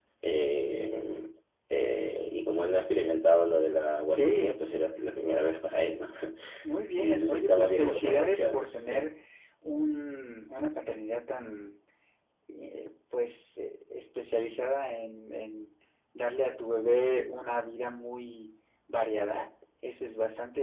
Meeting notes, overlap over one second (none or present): present